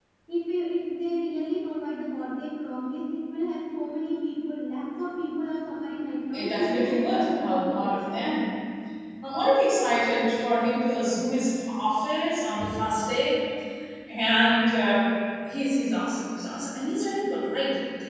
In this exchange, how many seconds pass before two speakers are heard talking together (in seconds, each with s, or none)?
6.3 s